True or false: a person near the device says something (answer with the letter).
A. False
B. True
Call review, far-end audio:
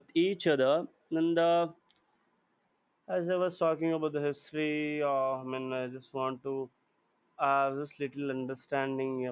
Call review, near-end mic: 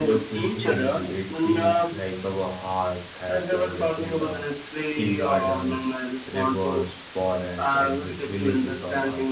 B